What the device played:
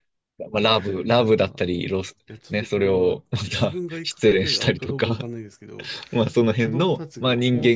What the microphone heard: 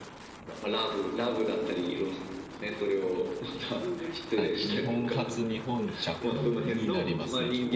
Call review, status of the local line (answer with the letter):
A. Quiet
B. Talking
B